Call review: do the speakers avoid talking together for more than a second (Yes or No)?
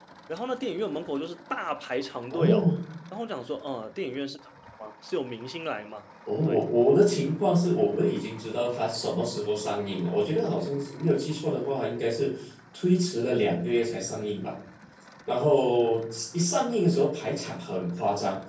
Yes